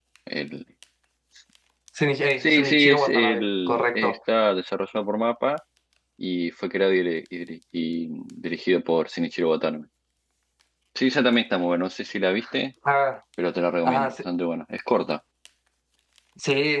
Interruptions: present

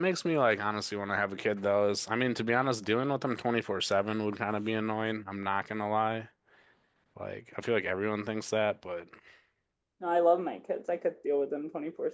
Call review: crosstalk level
none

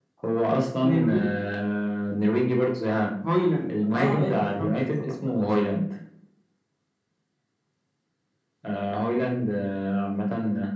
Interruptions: present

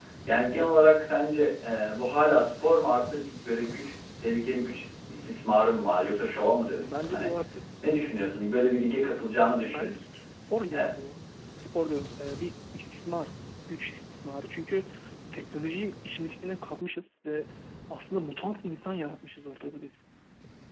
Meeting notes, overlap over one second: none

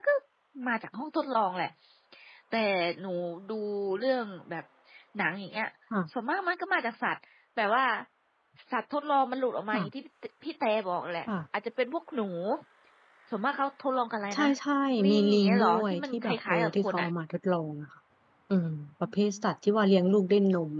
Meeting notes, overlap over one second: present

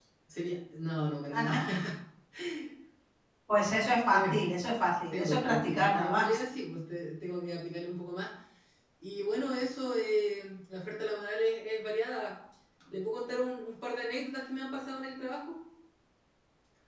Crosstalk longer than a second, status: present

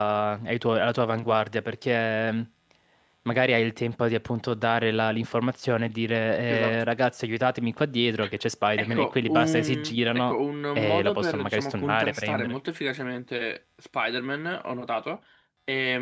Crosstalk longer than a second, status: present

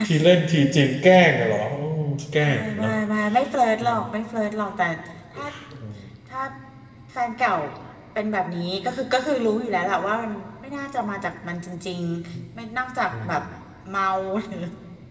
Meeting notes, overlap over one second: none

